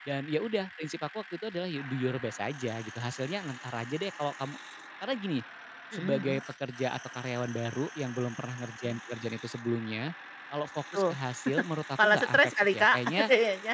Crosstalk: present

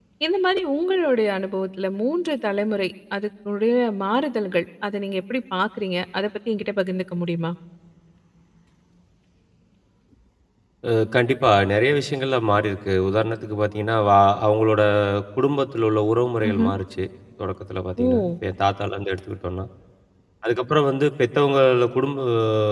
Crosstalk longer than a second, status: none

